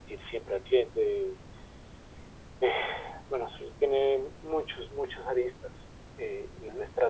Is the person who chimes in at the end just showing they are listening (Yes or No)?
Yes